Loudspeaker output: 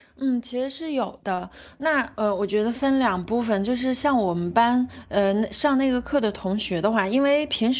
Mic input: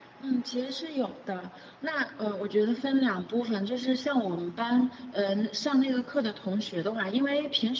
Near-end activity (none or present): none